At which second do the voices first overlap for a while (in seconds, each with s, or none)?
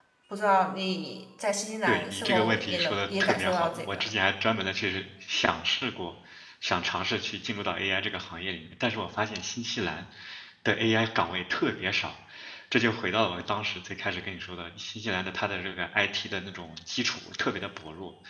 1.9 s